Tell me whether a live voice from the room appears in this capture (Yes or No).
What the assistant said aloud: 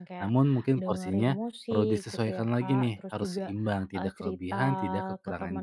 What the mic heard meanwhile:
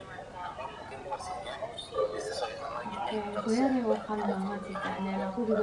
Yes